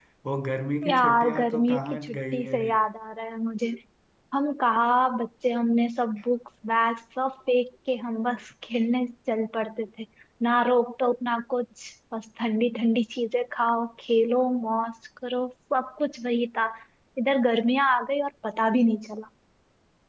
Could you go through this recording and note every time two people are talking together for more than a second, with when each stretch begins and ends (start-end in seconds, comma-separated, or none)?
0.9-2.6